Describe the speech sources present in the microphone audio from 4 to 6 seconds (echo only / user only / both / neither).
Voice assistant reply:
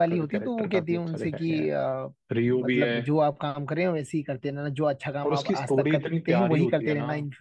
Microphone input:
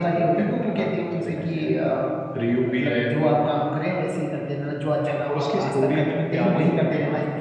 echo only